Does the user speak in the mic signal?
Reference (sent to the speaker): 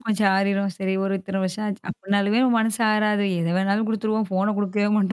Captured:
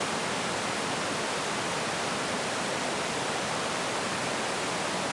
No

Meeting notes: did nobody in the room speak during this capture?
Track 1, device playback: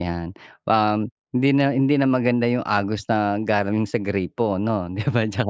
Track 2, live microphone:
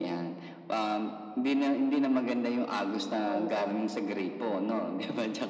No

